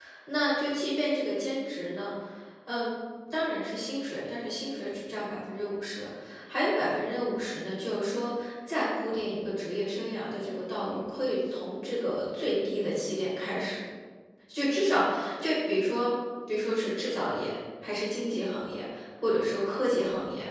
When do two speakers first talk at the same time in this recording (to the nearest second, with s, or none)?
none